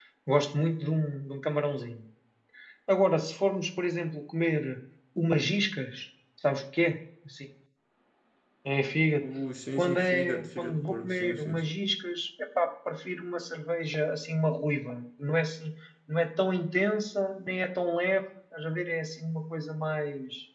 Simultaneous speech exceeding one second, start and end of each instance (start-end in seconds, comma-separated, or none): 9.7-11.7